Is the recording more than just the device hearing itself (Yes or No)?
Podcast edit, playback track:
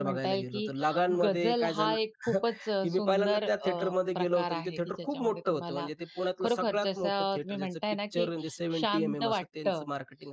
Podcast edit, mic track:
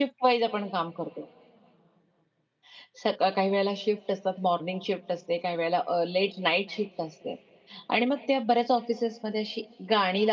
Yes